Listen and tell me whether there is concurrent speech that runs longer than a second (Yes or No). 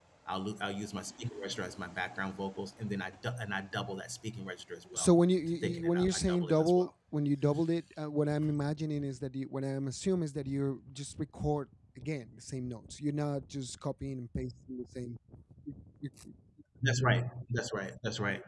Yes